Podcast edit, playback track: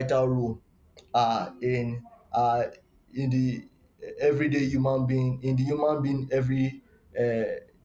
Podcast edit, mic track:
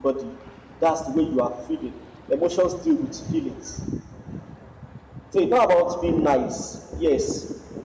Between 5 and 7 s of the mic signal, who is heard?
user only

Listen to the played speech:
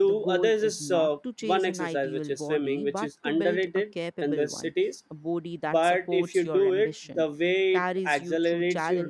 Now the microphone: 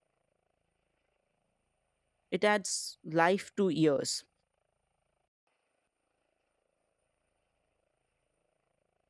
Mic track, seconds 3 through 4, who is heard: user only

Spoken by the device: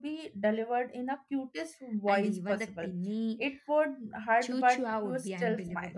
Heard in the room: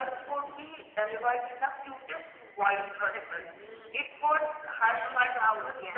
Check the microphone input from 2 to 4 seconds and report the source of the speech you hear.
echo only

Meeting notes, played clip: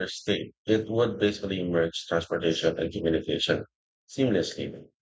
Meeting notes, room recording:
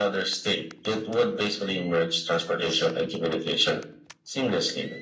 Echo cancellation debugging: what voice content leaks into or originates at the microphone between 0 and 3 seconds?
echo only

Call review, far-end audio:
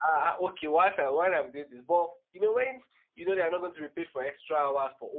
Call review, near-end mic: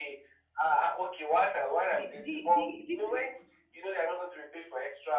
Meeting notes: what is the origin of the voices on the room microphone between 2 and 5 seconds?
both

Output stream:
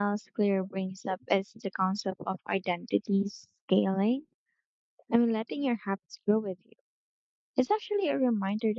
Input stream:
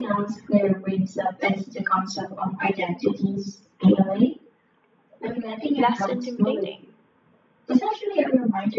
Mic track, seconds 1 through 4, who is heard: echo only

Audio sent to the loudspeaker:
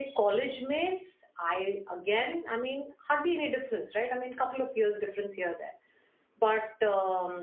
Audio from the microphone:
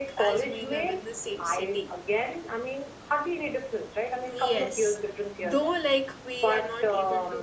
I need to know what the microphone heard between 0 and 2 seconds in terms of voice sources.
both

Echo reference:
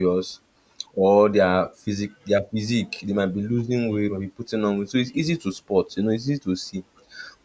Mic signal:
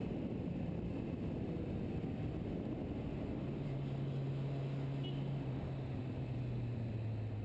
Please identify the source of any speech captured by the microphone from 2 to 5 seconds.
neither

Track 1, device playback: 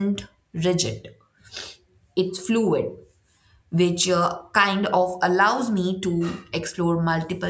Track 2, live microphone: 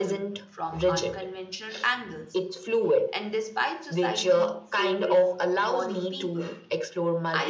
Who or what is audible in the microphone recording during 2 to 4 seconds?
both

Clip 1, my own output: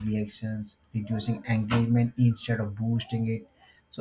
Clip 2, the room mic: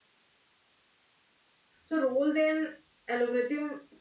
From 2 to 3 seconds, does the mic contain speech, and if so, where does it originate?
user only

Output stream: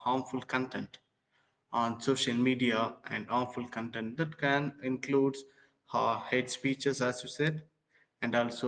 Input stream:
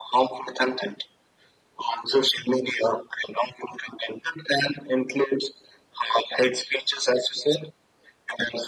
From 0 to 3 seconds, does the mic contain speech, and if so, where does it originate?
echo only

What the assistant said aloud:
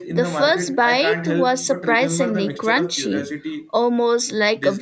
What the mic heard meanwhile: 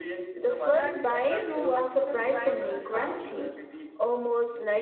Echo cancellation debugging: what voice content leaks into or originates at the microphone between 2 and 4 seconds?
both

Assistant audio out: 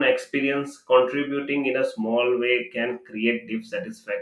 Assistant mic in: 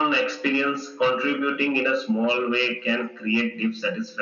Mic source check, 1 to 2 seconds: echo only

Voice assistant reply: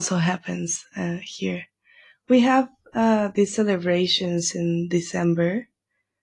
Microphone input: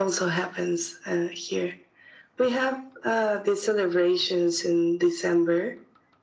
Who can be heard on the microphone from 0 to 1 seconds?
echo only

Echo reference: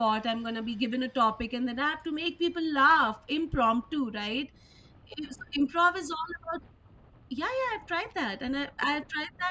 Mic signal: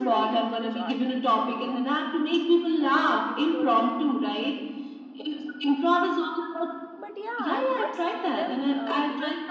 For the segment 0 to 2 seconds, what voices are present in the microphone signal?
both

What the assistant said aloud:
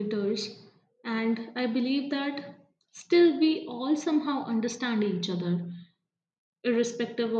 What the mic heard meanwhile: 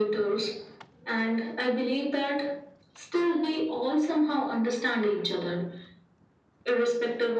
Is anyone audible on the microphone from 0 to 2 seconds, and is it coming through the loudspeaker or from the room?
echo only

